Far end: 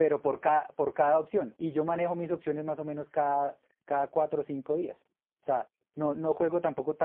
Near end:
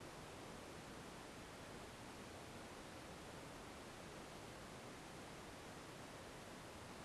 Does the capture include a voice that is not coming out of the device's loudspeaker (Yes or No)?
No